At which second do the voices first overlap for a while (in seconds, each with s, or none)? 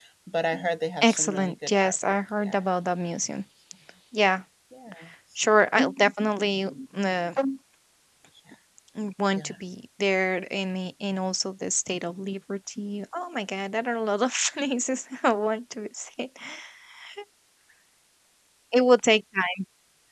1.0 s